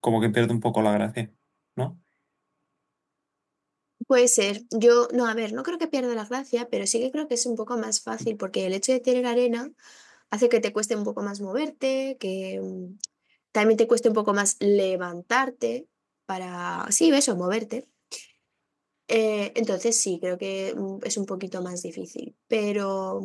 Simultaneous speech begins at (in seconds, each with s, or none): none